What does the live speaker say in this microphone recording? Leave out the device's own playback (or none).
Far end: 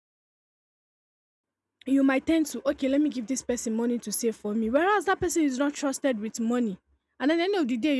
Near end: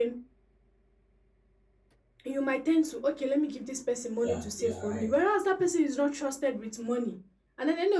yeah, you are right.